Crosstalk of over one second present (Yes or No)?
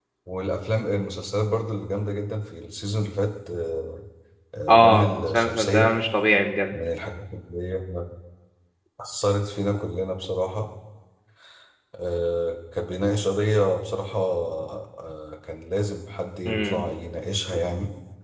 Yes